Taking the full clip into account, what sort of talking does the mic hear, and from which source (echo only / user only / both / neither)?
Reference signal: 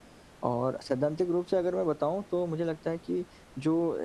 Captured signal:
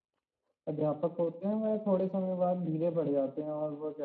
user only